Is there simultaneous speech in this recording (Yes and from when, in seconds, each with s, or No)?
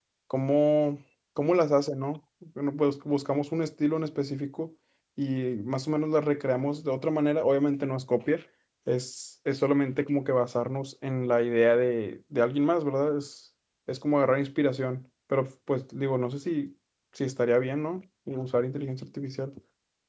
No